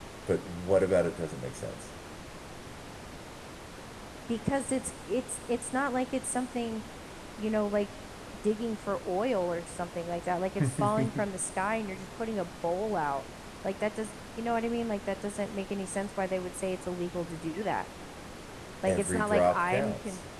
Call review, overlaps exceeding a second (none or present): present